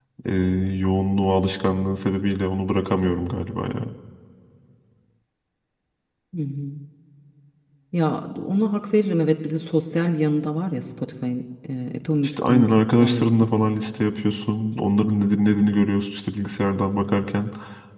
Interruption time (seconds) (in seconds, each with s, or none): 12.2 s